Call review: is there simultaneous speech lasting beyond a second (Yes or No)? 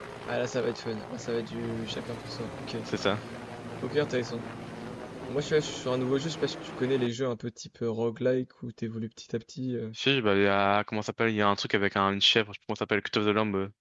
No